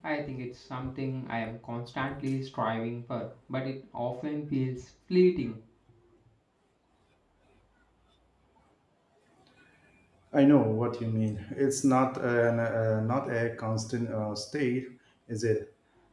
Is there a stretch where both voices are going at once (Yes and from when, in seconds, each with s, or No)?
No